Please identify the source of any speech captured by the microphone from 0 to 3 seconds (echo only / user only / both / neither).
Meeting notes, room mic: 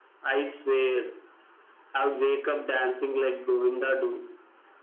echo only